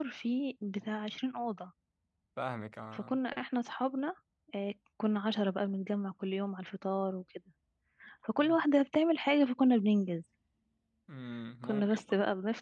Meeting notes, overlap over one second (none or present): none